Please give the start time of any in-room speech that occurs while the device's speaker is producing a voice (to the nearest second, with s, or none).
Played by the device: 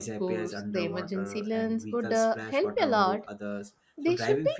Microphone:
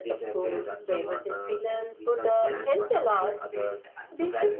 2 s